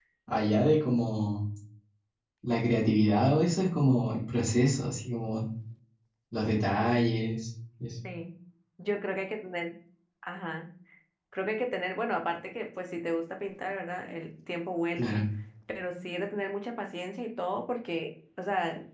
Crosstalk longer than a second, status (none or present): none